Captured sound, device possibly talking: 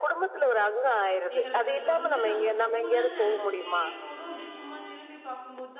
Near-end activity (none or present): present